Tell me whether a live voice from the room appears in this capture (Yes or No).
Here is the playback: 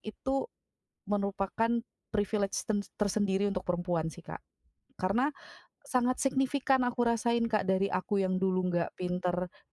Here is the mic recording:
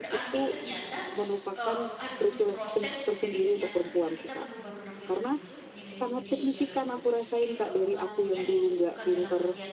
Yes